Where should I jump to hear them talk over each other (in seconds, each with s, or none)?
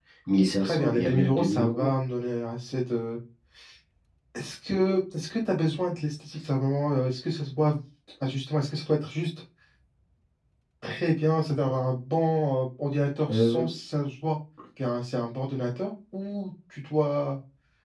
0.6 s